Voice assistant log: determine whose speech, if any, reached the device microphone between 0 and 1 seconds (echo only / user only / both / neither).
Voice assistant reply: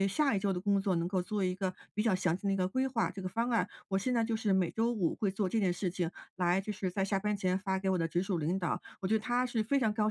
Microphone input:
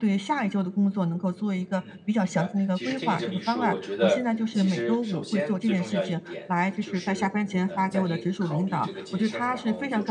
echo only